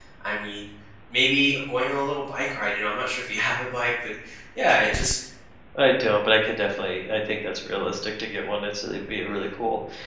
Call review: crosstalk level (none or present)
none